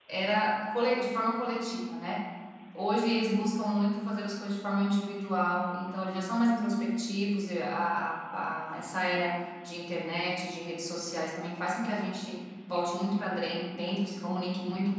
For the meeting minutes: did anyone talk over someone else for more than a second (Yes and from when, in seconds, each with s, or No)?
No